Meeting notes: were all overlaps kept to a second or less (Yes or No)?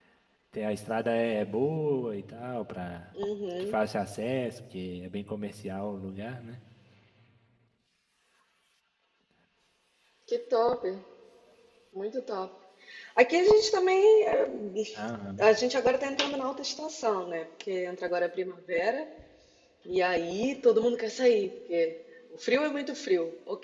Yes